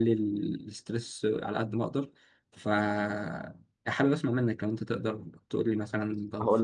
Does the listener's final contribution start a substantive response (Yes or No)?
Yes